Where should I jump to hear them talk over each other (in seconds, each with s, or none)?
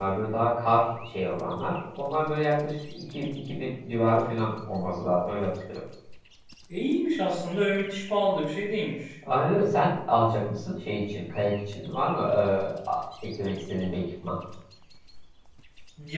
none